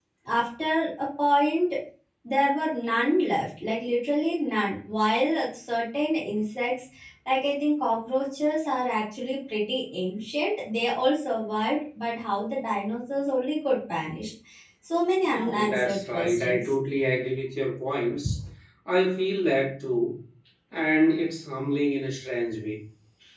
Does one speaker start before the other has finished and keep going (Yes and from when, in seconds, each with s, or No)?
Yes, from 15.2 s